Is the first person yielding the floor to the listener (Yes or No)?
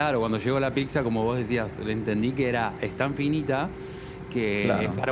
No